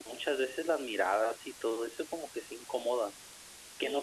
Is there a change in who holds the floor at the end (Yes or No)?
No